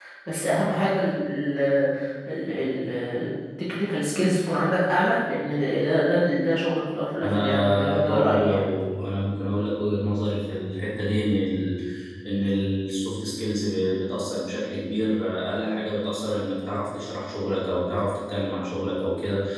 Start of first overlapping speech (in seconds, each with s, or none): 7.2 s